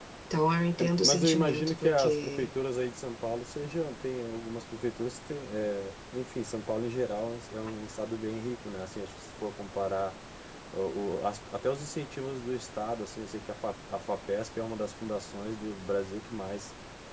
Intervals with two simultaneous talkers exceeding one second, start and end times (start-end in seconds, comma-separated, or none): 0.7-2.5